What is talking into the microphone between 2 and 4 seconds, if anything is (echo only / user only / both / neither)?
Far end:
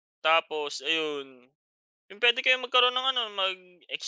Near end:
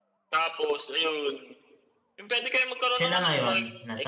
both